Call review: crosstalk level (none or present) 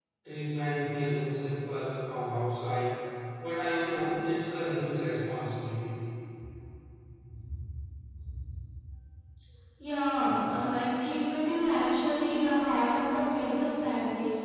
none